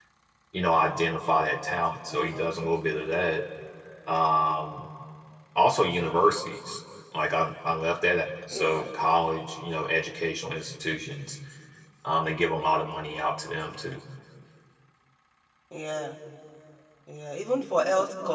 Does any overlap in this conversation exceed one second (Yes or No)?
No